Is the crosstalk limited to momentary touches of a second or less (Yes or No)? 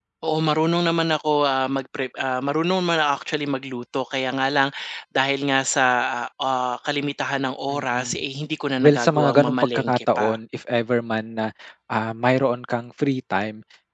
No